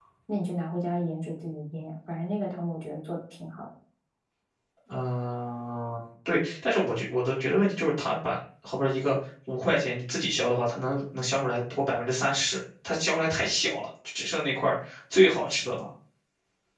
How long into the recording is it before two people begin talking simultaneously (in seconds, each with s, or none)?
none